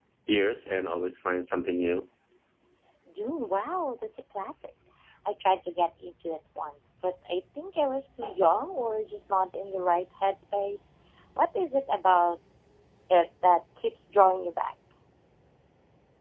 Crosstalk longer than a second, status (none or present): none